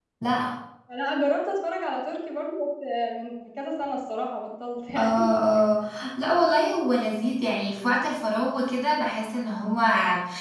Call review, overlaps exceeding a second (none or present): none